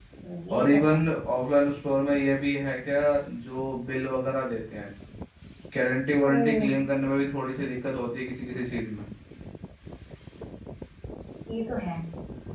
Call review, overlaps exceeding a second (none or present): none